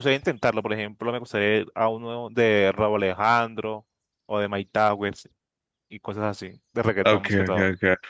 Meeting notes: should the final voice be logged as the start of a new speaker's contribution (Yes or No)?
Yes